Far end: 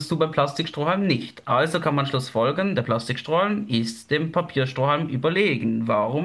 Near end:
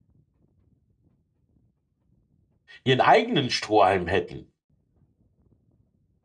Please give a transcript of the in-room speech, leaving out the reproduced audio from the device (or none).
ihren eigenen Strohhalm hätten.